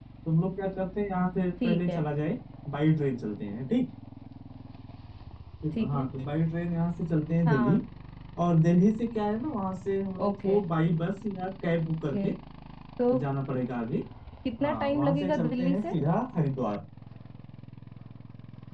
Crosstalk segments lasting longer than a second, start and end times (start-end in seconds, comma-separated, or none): 14.6-16.0